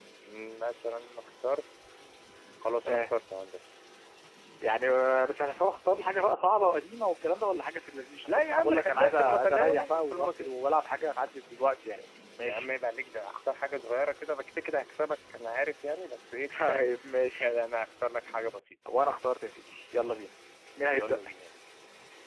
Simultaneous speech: Yes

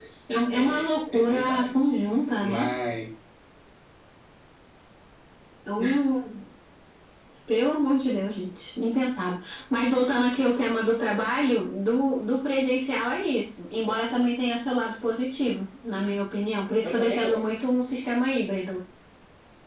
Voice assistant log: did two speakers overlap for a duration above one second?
Yes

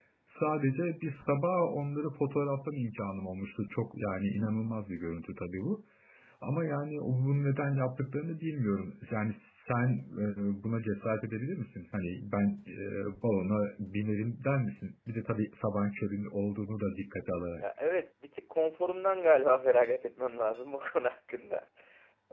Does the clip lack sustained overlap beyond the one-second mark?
Yes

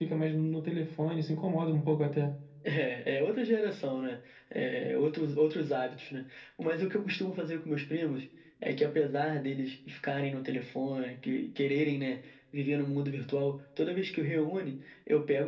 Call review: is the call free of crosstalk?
Yes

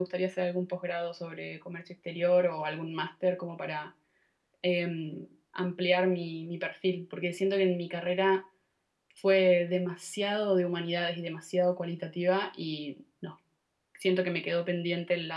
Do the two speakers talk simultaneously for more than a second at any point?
No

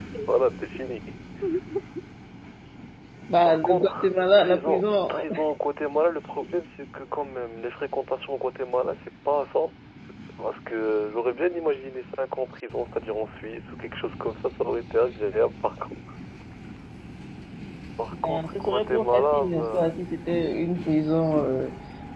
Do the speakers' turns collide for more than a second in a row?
Yes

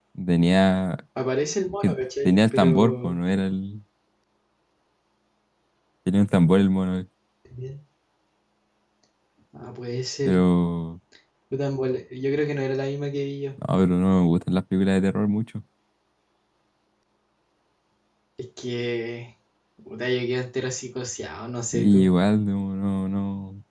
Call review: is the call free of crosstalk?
No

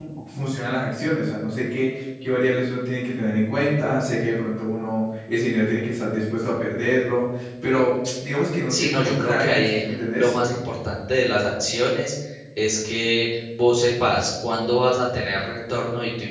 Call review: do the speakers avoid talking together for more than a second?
No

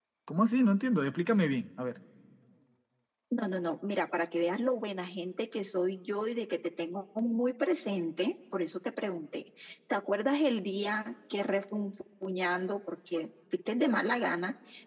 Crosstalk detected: No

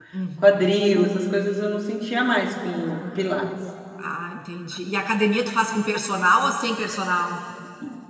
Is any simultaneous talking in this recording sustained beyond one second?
No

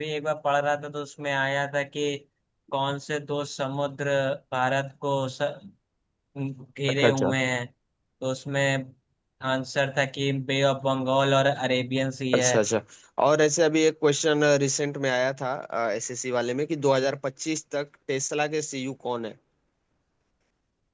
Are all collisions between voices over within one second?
Yes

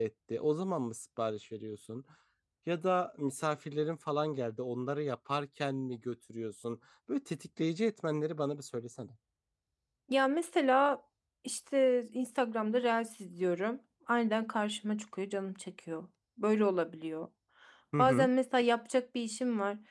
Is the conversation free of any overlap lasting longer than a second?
Yes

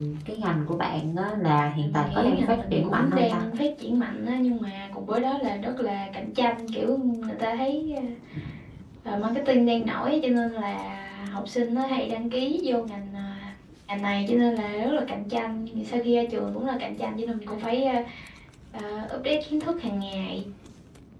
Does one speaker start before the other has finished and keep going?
Yes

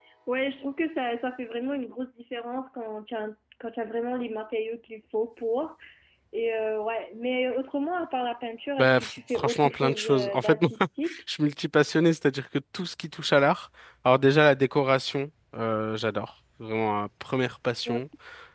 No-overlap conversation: No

